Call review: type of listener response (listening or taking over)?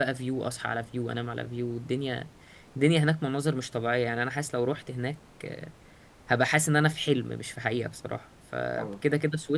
listening